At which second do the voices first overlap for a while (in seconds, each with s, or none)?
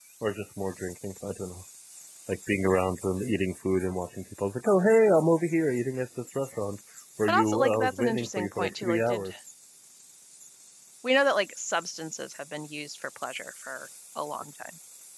7.3 s